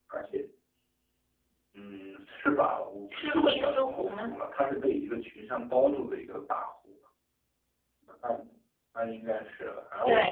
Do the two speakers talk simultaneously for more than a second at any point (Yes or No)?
Yes